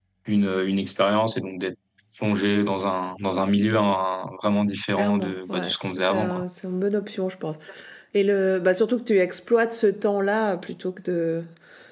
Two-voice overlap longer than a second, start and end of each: 4.9-6.4

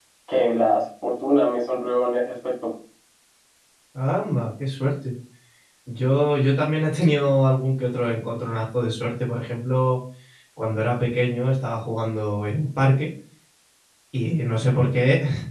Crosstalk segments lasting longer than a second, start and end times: none

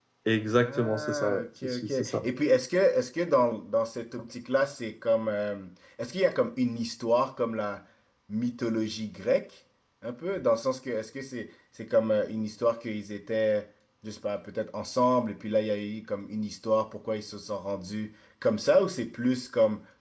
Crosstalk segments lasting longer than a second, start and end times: 0.6-2.2

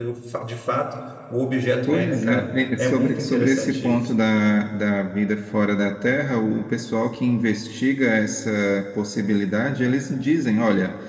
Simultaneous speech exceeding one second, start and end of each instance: 1.9-4.0

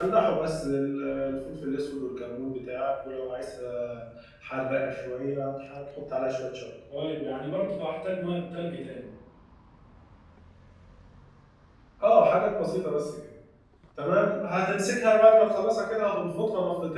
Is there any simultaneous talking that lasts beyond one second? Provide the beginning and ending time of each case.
none

